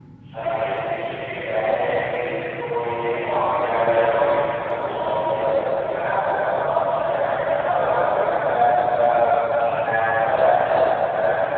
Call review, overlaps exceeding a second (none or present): present